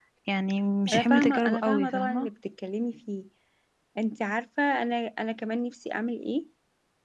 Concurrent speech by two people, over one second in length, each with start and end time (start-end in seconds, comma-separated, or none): 0.9-2.3